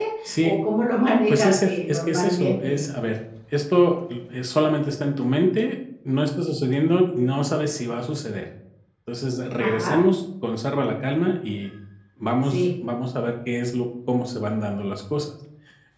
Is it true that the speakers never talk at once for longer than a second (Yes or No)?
No